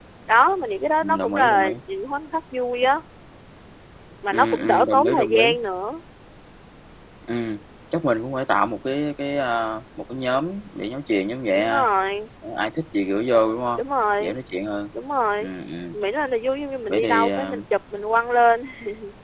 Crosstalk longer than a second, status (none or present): present